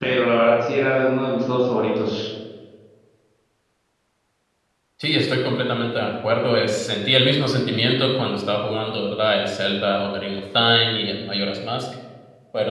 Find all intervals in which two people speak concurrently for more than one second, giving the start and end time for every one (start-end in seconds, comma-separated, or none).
none